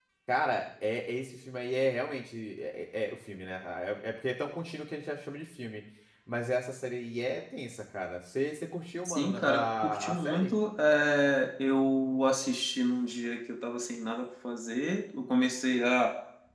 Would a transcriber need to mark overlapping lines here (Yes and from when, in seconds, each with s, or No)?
Yes, from 9.1 s